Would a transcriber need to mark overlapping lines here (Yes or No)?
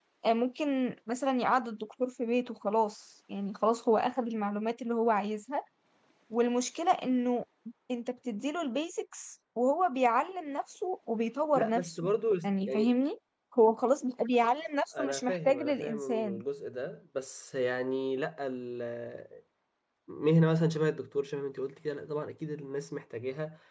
Yes